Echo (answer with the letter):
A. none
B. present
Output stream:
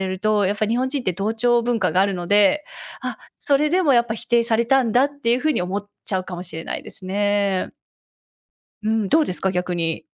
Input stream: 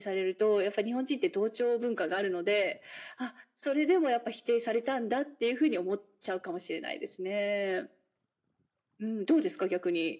B